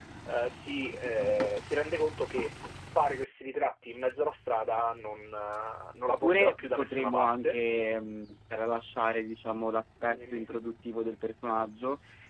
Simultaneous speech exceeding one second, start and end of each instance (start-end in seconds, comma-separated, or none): 6.1-7.6